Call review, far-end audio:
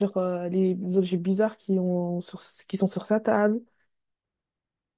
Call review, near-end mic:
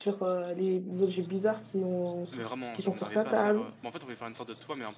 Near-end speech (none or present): present